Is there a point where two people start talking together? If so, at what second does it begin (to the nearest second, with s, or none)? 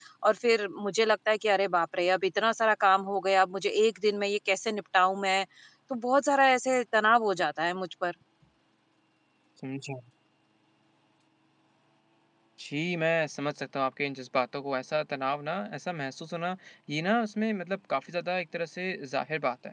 none